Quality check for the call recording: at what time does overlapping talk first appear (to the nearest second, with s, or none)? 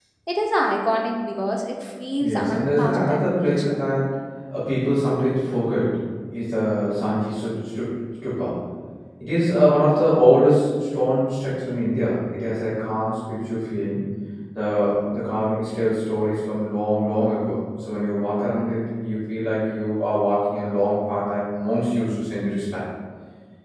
2 s